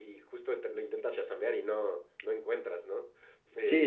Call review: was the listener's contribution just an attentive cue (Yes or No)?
No